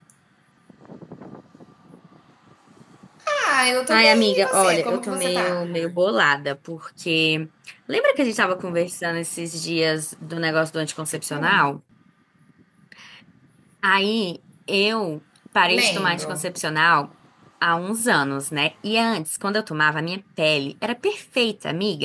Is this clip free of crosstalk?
No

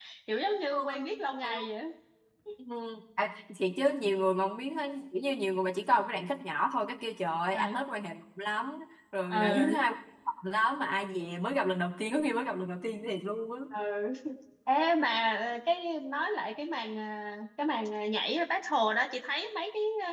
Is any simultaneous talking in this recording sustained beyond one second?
No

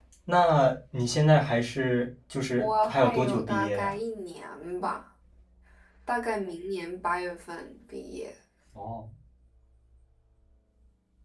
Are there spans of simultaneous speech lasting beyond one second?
Yes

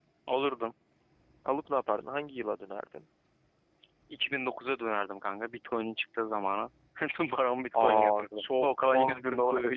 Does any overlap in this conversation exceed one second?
Yes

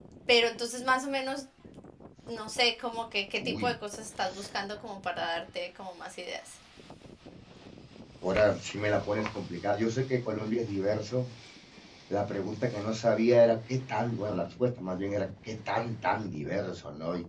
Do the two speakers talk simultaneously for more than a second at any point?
No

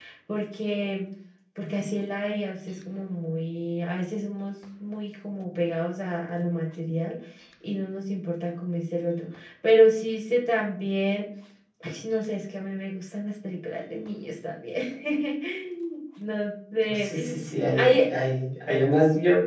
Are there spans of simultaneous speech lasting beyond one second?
No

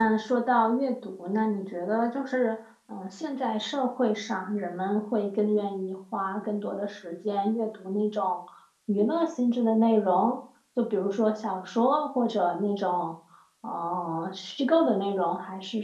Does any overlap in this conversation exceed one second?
No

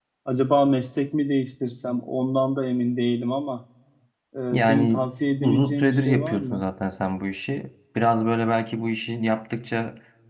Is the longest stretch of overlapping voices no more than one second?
No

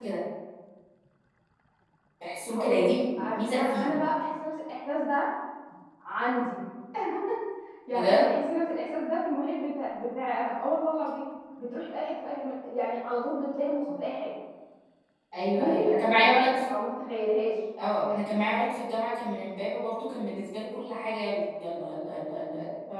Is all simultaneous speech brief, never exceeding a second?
No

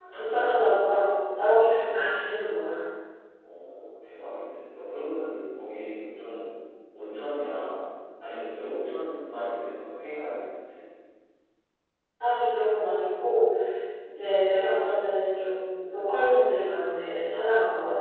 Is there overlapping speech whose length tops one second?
No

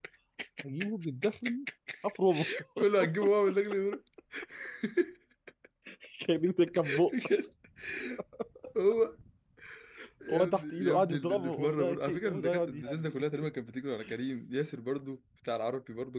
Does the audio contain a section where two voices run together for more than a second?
Yes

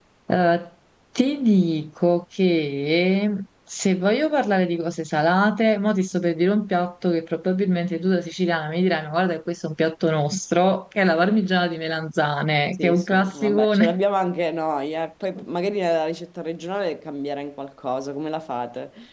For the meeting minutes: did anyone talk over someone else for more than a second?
Yes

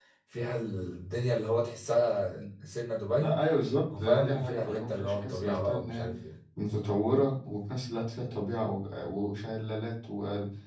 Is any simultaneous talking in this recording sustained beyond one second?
Yes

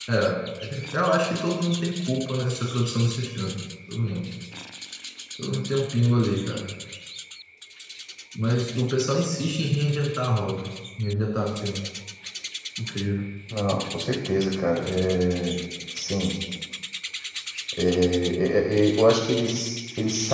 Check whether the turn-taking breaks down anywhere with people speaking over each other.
No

